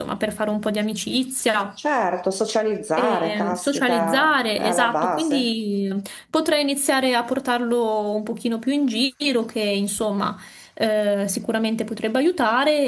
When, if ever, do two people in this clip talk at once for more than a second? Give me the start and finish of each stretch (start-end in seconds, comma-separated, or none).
3.0-5.5